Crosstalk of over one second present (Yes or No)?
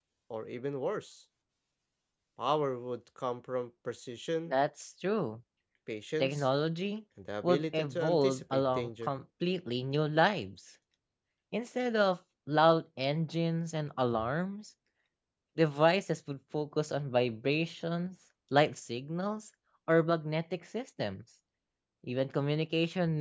Yes